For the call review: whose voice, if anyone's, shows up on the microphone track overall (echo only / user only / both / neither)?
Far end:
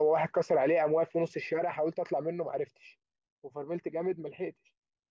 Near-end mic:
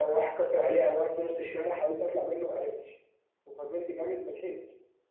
echo only